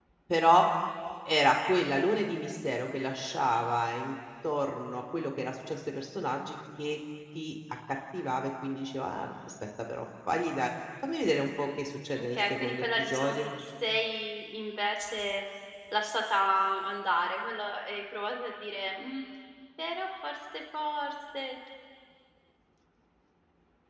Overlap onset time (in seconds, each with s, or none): 12.2 s